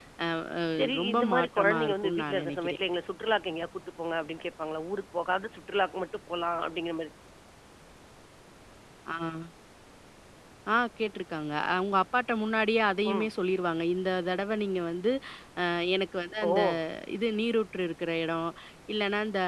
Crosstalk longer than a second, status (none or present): present